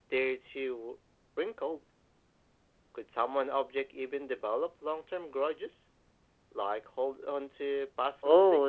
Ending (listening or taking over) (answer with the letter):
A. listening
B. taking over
B